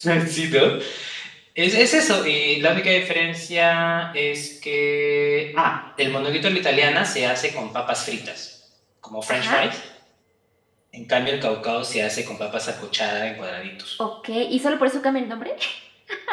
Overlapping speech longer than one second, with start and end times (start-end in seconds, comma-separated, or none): none